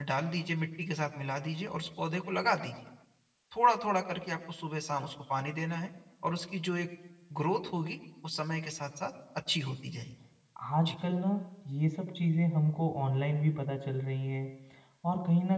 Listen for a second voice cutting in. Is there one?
No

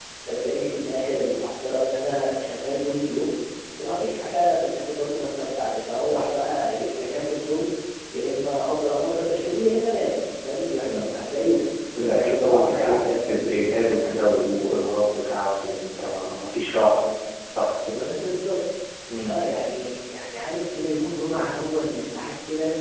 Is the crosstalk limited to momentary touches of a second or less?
No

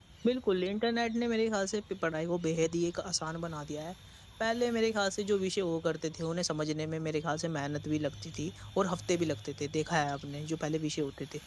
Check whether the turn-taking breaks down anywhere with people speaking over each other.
No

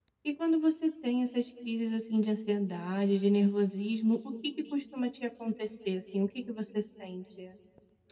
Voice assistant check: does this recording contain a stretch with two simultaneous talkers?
No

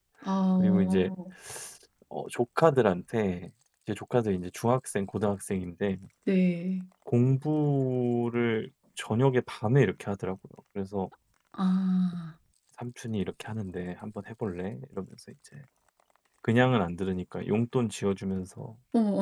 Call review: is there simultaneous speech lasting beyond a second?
No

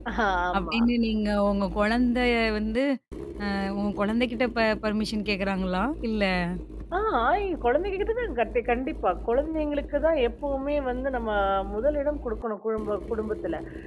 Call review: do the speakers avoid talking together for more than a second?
Yes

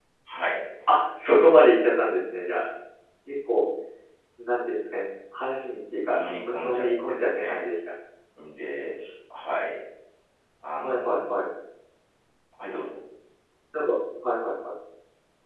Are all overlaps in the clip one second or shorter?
No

